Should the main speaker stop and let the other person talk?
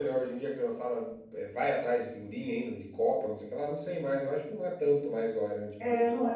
Yes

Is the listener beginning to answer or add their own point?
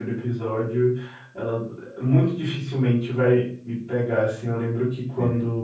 No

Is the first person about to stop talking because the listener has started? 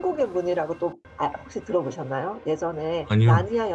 No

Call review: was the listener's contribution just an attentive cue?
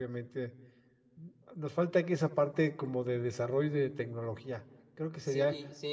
No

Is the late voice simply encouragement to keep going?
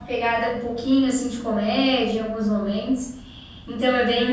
No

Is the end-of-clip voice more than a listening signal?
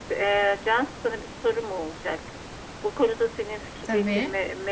No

